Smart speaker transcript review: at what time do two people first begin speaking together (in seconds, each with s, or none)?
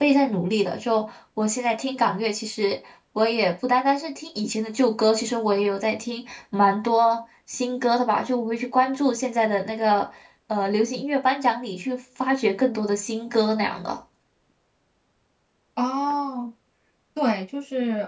none